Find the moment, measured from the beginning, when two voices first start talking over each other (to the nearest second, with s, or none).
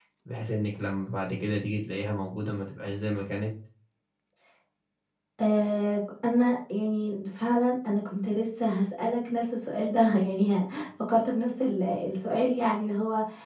none